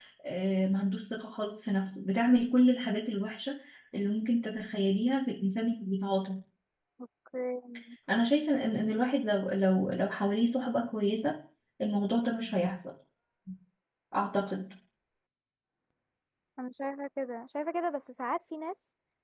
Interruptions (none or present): none